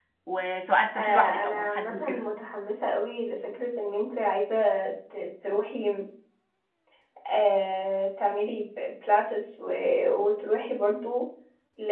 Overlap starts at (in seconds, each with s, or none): 0.9 s